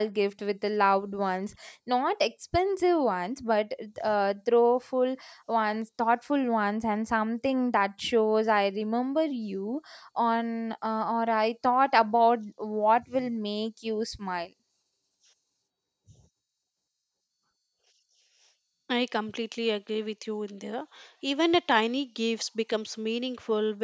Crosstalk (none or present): none